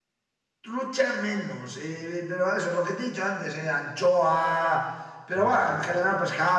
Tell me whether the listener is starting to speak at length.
No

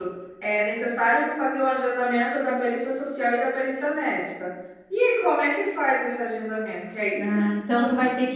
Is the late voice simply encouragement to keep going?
No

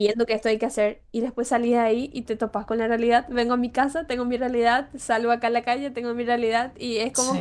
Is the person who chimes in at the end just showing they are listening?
Yes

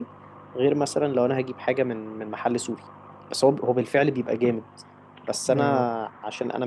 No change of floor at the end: Yes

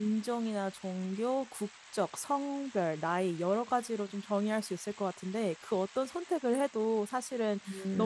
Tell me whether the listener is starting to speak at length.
No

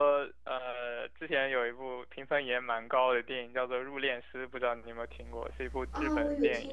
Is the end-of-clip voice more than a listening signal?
Yes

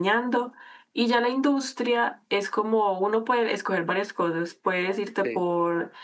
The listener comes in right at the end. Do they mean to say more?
No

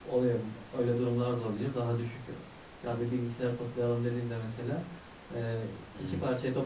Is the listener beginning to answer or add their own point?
No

